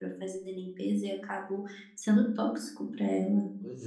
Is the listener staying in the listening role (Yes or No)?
Yes